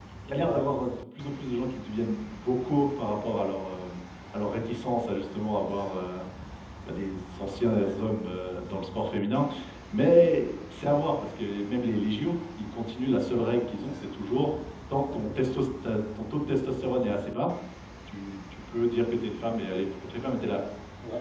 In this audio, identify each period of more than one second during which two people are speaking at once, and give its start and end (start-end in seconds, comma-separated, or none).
none